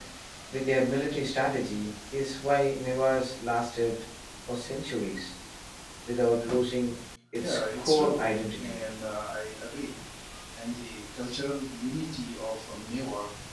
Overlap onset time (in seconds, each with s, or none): 7.4 s